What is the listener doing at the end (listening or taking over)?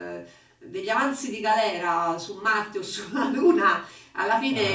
listening